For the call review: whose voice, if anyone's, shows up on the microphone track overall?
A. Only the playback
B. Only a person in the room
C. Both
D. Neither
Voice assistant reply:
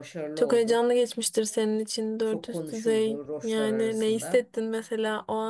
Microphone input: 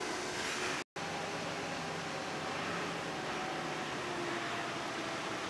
D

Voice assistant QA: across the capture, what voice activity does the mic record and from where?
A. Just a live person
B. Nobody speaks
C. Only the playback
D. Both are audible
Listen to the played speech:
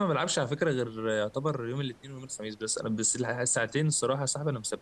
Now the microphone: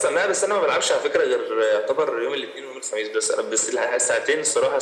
C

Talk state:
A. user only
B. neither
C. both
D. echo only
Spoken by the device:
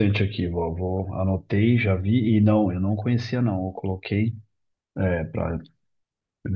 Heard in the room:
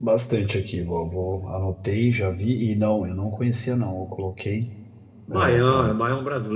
C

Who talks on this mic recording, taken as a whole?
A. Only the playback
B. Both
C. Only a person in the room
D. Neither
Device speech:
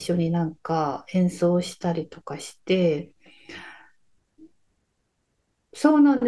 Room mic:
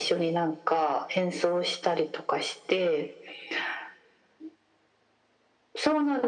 A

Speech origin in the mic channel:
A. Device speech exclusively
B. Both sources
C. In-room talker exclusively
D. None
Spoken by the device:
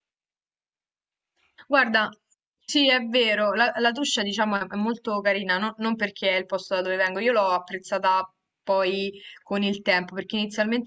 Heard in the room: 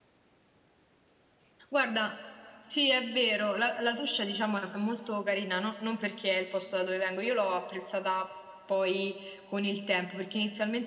A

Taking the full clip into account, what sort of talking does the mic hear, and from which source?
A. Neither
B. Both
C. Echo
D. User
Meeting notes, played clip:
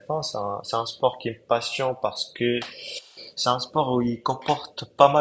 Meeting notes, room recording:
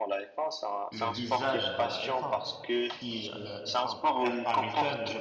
B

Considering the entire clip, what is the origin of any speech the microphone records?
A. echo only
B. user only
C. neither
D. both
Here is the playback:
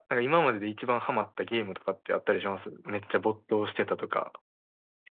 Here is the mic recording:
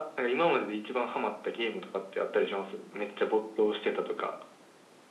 A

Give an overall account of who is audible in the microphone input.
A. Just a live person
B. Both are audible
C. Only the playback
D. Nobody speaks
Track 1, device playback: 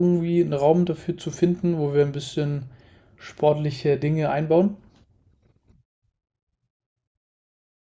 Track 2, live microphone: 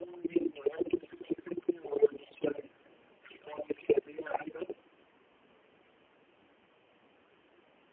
C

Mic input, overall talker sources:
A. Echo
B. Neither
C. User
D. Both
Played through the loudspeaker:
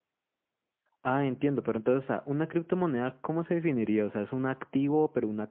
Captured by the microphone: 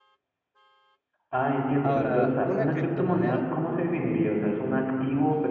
D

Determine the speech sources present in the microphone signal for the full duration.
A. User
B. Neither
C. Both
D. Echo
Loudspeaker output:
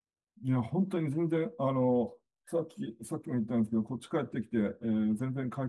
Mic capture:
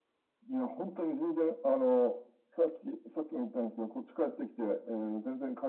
D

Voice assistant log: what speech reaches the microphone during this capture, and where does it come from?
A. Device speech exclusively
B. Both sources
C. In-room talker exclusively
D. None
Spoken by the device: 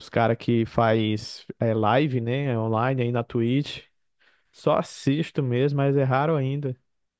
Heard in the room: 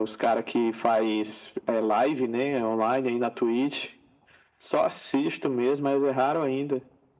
A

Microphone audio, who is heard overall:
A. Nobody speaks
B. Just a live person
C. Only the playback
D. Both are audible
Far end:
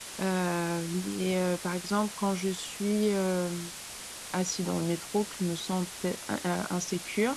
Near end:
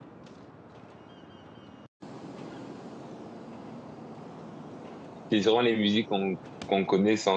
B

